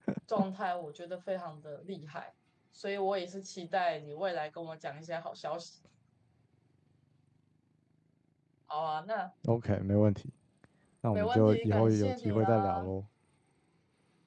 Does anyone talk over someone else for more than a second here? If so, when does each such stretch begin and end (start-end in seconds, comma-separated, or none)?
11.1-12.9